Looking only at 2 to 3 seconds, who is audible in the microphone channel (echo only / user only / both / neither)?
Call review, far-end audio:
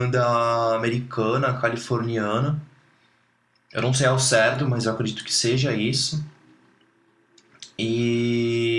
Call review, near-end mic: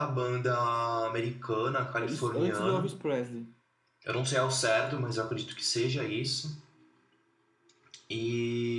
both